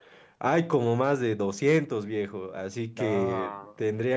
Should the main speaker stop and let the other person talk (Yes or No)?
No